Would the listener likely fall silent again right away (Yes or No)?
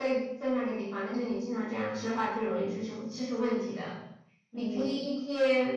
Yes